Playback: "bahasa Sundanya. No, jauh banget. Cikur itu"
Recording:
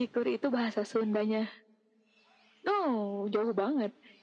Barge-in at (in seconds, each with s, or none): none